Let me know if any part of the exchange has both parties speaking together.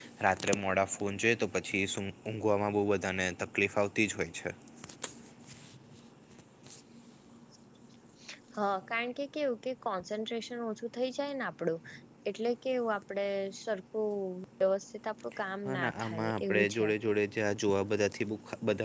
Yes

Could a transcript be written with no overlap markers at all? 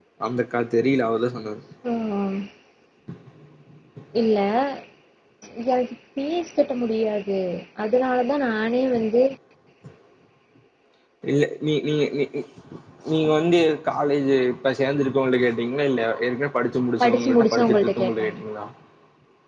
No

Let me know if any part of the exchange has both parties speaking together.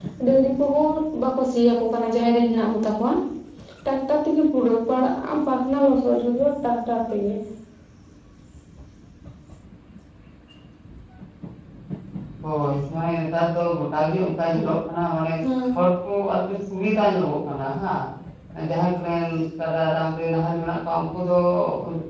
No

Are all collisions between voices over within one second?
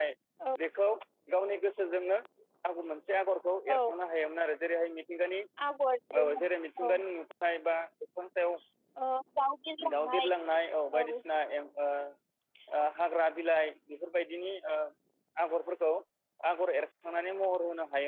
Yes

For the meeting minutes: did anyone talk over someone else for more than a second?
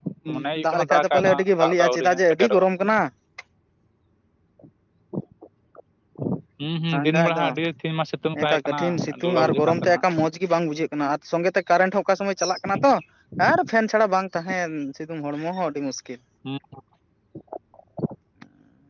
Yes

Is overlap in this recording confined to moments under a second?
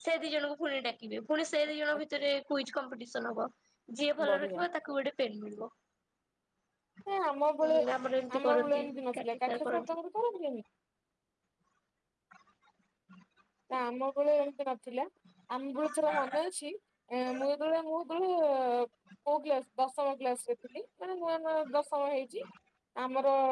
No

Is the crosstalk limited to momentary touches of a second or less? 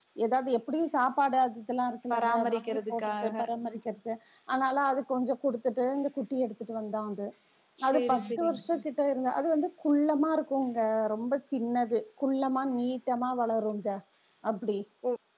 No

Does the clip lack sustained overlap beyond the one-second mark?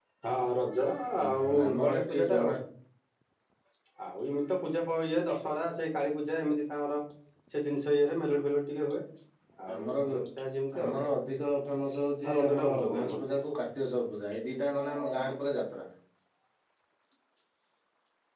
No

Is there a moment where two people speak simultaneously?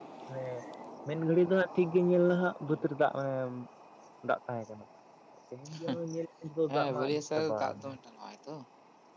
Yes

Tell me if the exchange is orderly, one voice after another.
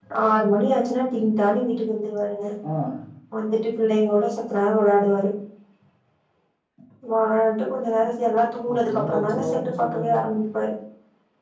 No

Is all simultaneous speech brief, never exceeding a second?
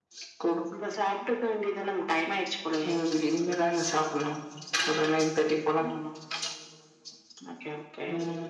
Yes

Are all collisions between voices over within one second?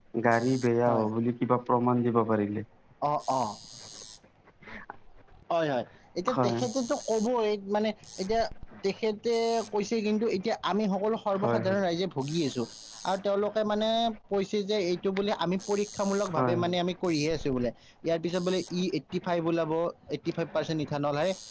Yes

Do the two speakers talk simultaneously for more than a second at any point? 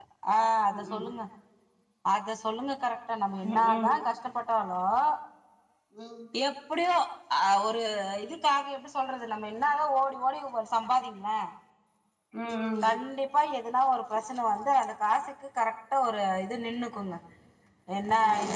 No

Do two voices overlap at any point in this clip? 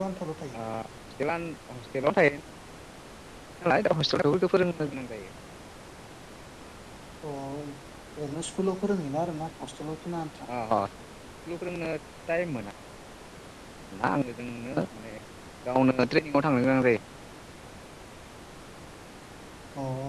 No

